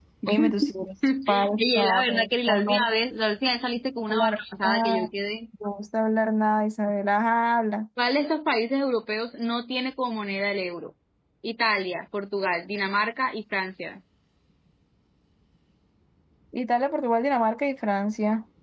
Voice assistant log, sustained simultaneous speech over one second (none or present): present